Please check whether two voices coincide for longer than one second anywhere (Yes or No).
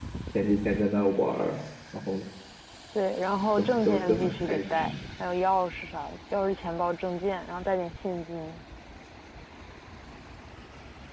Yes